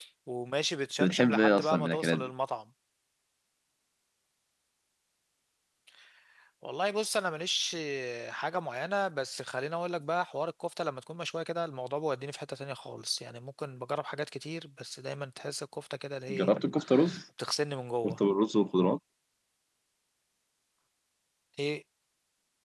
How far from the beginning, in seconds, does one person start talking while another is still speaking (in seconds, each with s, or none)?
1.0 s